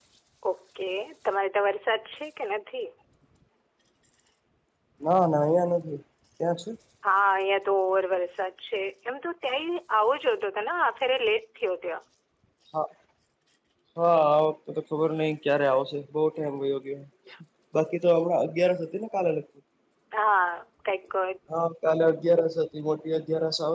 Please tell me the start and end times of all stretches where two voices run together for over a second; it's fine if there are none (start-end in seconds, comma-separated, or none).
none